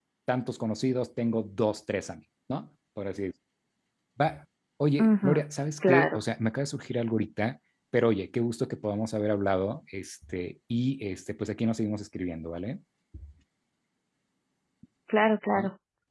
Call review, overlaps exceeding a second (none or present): none